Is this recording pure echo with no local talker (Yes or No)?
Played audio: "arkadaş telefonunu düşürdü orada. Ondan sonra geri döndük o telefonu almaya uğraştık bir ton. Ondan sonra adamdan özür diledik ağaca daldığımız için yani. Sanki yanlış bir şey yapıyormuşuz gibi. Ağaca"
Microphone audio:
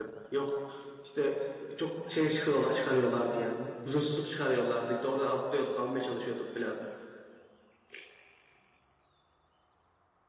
No